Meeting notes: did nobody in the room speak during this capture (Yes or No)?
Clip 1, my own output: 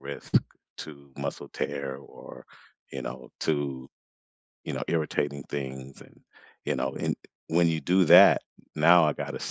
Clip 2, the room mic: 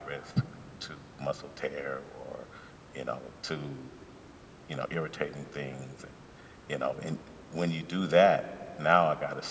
Yes